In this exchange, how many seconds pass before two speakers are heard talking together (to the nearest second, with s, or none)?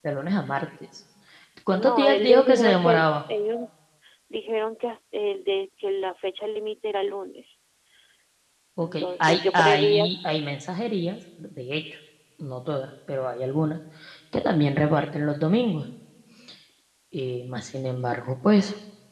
2 s